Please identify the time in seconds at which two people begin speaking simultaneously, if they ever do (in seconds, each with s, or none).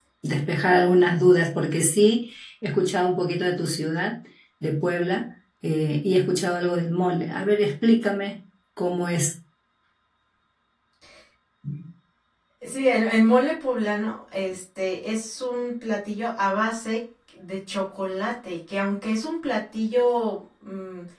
none